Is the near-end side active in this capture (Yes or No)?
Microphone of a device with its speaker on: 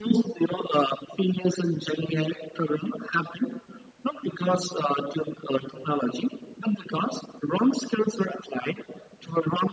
No